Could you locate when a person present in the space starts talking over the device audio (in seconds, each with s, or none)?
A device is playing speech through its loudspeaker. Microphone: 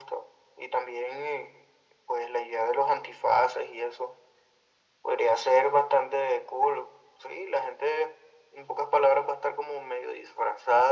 none